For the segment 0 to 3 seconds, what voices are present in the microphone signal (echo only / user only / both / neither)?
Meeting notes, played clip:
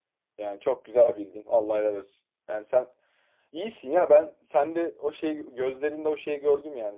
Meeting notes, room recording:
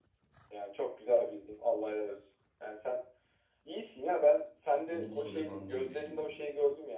echo only